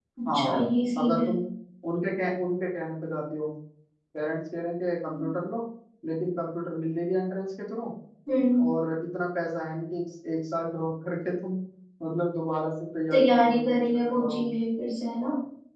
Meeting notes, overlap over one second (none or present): present